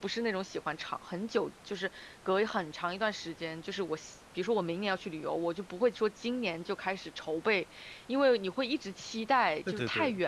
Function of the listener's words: listening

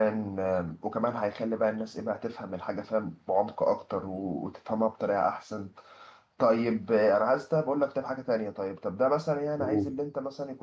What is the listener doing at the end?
listening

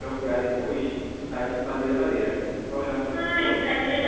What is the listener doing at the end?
taking over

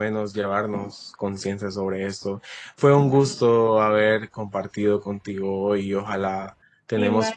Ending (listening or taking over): listening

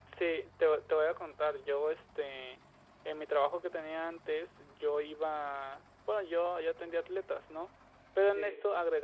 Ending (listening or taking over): listening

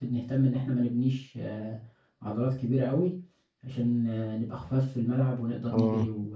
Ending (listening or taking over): taking over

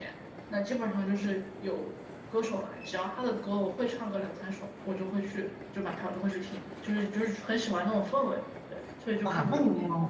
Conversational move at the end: taking over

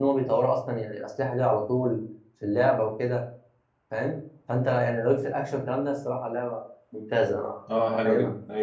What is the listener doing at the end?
taking over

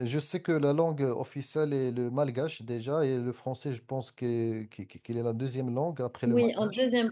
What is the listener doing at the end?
taking over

